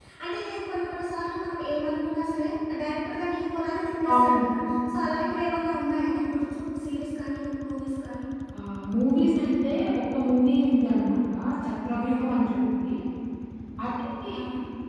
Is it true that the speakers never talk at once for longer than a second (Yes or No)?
Yes